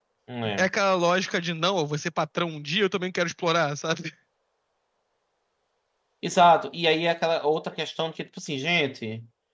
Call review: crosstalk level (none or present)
none